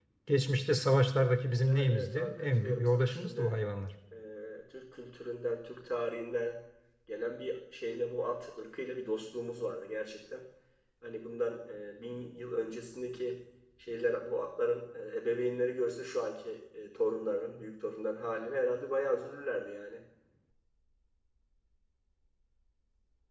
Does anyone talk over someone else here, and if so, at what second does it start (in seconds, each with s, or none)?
1.6 s